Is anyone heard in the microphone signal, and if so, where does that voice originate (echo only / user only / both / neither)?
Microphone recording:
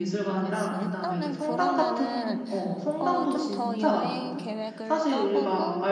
both